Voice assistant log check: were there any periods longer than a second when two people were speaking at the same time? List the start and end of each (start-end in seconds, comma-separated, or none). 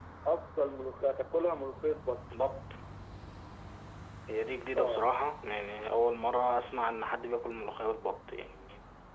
none